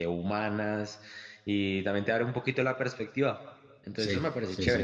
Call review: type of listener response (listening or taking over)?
taking over